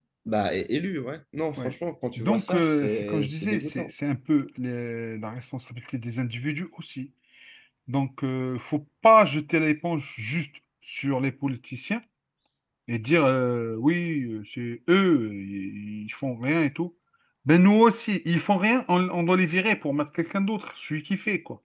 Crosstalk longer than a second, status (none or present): present